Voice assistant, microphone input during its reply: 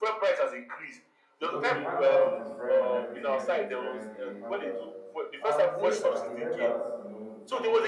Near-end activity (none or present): present